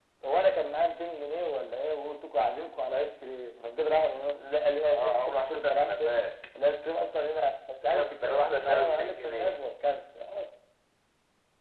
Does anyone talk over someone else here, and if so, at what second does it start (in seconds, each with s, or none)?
4.9 s